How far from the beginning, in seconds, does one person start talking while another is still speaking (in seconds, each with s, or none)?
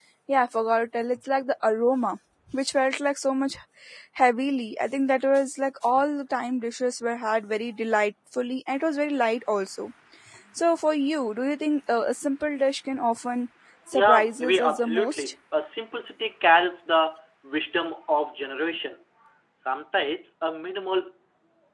13.9 s